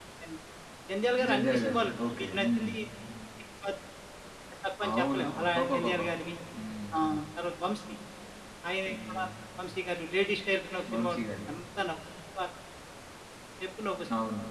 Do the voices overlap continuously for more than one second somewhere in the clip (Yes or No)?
Yes